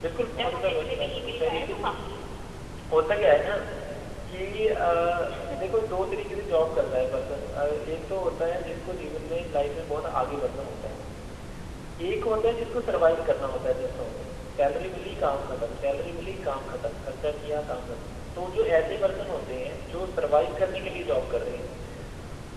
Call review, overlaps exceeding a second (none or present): present